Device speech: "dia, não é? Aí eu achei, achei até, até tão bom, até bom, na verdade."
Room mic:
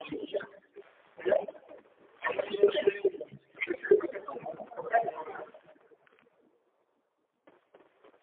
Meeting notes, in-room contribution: none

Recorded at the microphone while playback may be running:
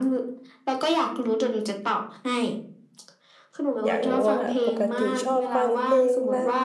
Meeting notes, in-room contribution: present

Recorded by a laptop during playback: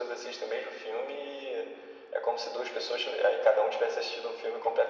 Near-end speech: none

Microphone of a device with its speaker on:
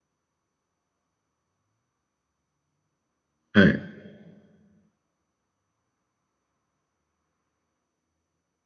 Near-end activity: present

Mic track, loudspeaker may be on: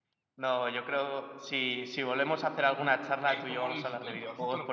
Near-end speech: present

